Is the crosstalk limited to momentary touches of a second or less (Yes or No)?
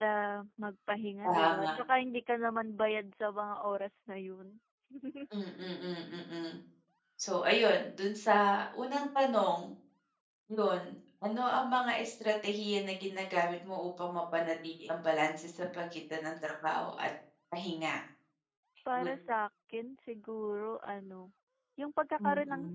Yes